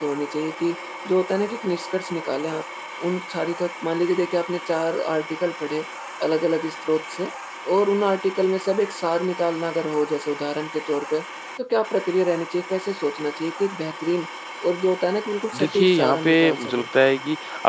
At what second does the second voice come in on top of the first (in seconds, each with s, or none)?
15.5 s